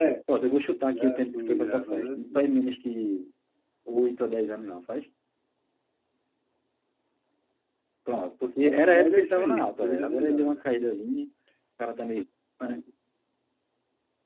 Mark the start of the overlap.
0.9 s

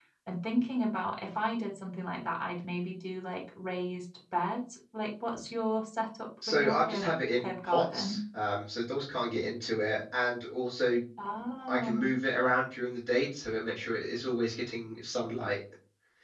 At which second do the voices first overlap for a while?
6.5 s

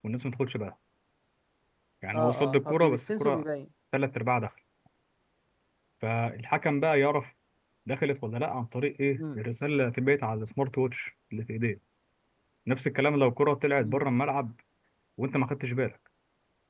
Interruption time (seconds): 2.1 s

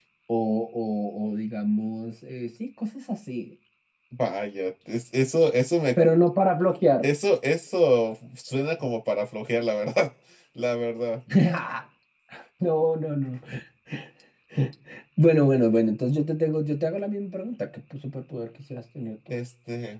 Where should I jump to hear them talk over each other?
none

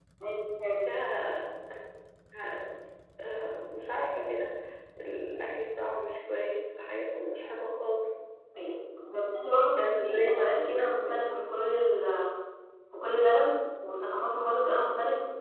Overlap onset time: 9.8 s

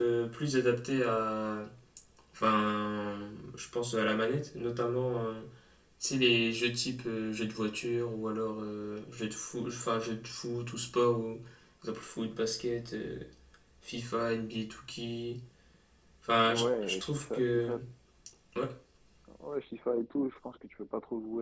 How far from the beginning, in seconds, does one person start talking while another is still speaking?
16.4 s

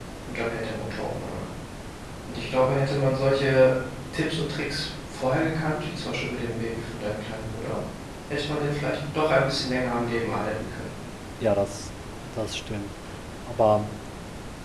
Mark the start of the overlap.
none

